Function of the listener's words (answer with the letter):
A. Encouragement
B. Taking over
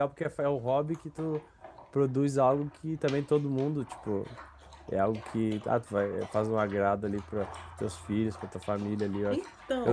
A